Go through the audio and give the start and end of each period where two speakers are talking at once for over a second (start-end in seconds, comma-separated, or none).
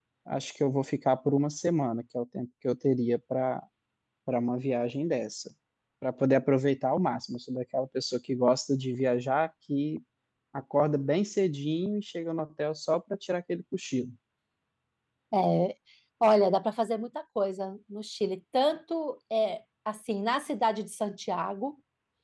none